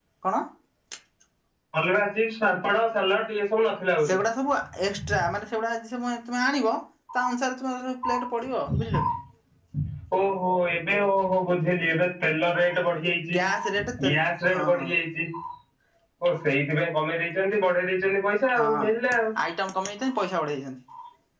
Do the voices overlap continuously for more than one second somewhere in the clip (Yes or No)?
No